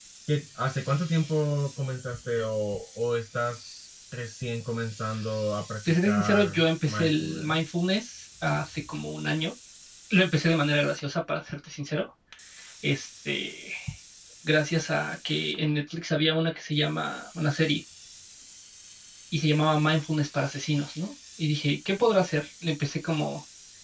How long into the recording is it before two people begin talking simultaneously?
5.8 s

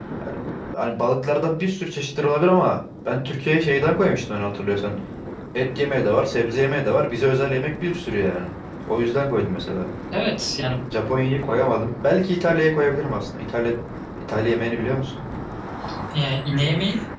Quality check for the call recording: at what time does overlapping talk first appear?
none

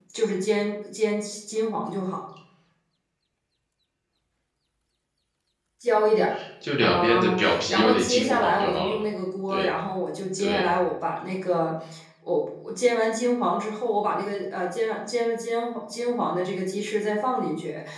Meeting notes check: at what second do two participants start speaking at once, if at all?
6.8 s

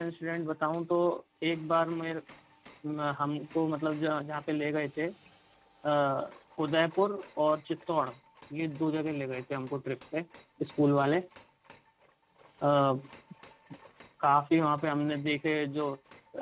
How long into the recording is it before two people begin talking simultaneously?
none

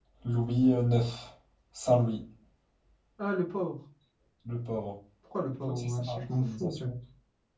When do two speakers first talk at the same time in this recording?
5.7 s

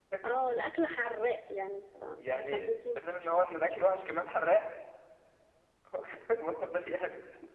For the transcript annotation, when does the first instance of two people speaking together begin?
2.2 s

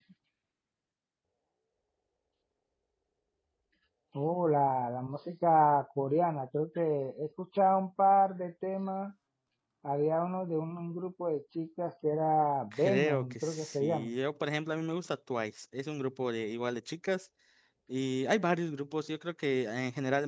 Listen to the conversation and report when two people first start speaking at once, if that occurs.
12.7 s

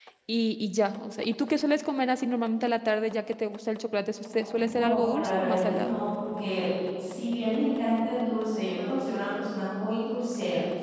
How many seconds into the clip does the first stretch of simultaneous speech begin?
4.2 s

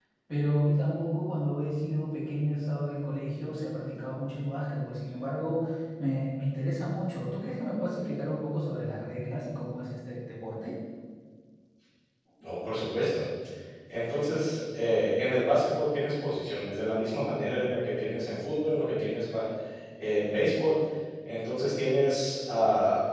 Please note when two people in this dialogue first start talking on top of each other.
none

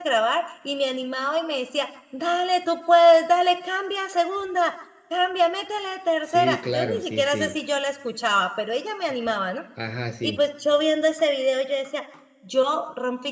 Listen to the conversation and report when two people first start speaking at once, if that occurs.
6.3 s

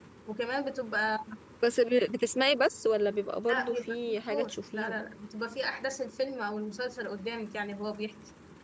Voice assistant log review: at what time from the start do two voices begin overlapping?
3.5 s

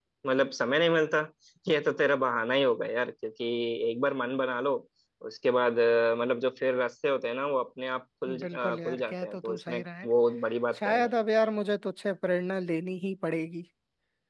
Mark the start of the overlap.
8.3 s

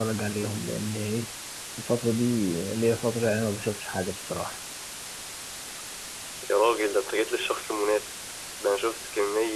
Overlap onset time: none

